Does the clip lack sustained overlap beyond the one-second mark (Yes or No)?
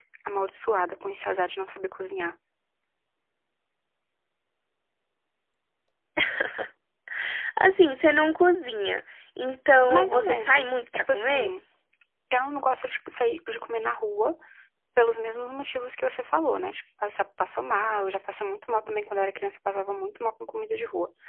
No